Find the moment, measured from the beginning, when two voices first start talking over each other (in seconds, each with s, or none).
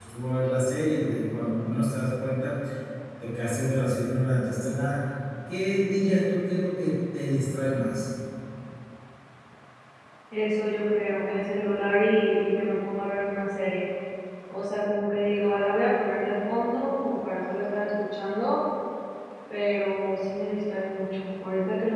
none